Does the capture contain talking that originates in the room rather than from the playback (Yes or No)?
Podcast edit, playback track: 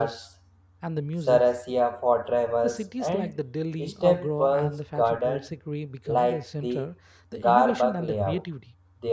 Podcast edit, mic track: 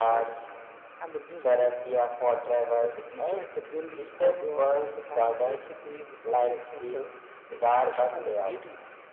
No